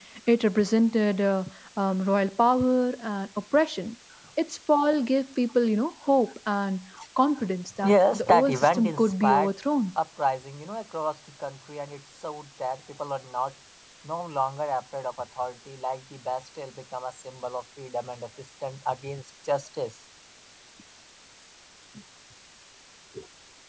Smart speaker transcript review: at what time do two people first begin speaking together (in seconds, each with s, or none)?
7.8 s